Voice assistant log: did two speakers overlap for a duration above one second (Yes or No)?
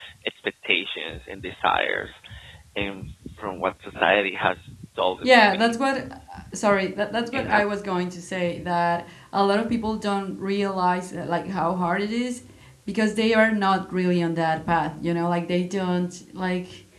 No